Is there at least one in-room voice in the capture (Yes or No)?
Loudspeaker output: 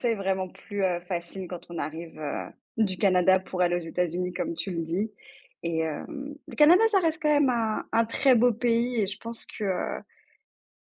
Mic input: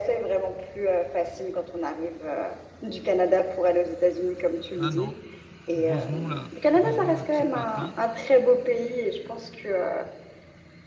Yes